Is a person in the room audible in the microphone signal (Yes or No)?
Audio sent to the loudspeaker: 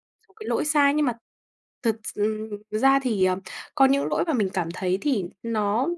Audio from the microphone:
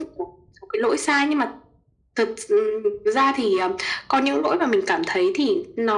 No